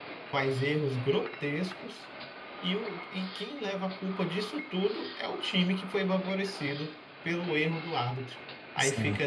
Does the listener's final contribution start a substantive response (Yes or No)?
No